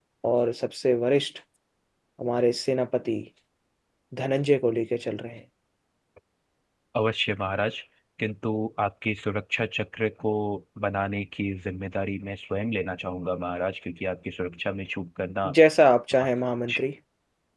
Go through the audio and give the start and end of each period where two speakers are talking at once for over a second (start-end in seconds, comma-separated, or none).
none